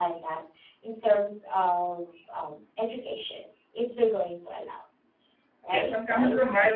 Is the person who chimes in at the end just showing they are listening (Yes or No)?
No